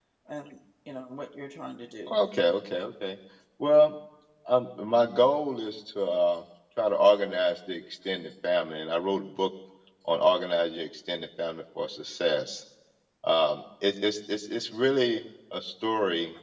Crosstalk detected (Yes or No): No